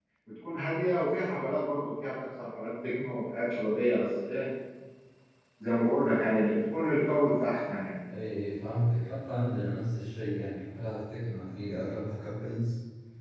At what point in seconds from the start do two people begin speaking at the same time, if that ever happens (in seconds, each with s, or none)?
none